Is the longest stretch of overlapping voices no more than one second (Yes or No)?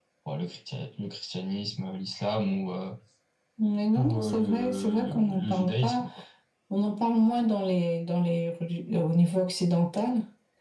No